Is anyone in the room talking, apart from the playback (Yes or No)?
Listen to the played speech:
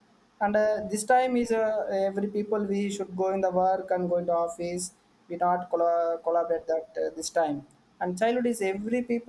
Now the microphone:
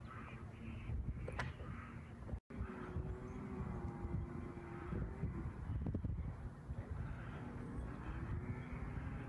No